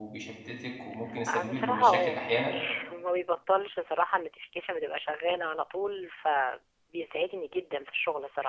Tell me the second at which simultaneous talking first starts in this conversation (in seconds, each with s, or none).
1.3 s